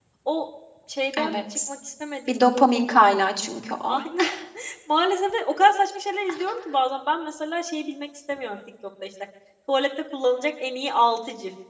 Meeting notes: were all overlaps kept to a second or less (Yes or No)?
Yes